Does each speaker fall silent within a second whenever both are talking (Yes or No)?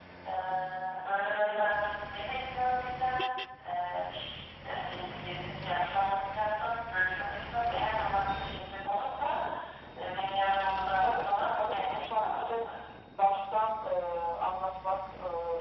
No